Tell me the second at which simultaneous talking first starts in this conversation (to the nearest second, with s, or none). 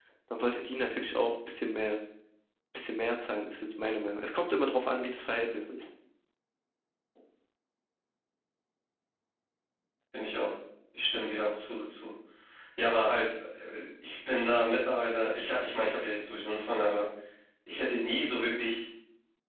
none